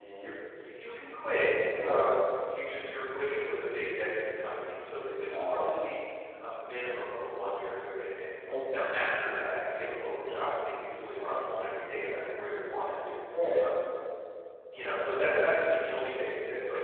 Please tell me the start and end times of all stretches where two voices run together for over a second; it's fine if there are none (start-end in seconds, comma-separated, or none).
none